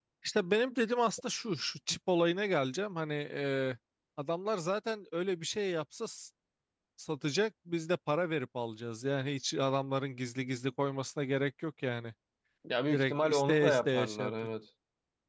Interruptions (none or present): present